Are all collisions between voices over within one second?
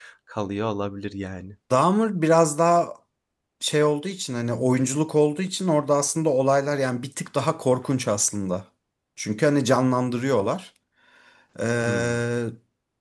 Yes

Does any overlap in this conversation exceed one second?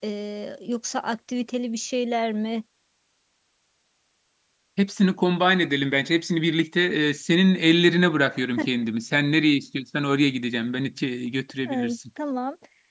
No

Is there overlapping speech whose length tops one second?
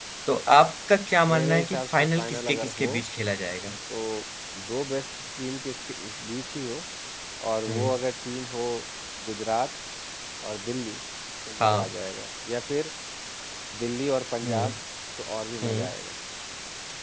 Yes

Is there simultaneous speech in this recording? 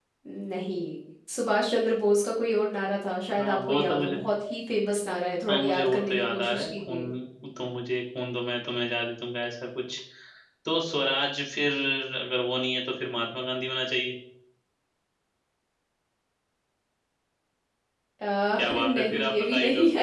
Yes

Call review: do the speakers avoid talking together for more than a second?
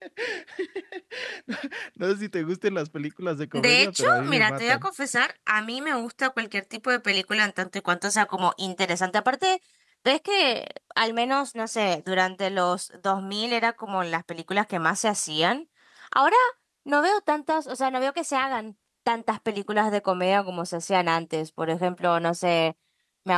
No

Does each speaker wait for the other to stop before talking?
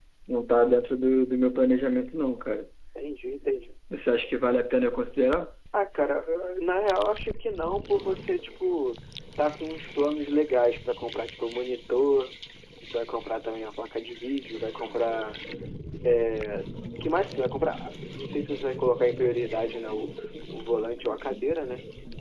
Yes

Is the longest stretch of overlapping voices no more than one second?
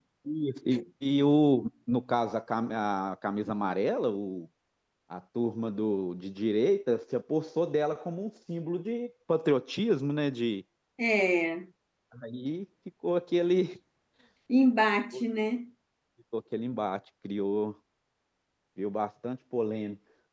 Yes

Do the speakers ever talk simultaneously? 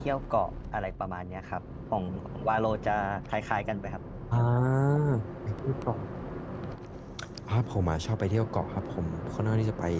No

